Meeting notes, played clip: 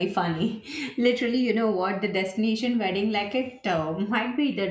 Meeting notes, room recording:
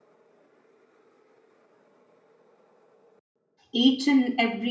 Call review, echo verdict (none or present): none